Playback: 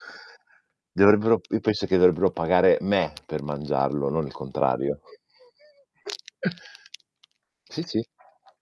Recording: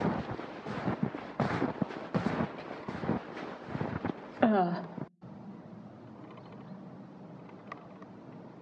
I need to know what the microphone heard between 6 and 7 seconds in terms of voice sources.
neither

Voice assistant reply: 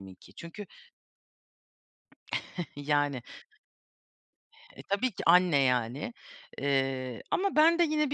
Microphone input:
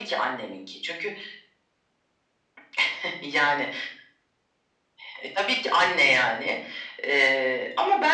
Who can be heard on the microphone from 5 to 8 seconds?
echo only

